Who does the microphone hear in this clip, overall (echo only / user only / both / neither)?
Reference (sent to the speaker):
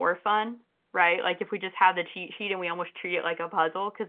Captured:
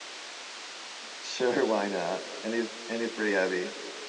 user only